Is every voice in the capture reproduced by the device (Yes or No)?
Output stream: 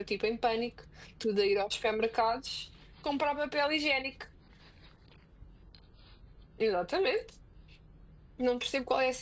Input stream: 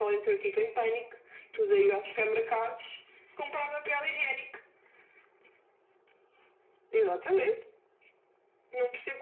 Yes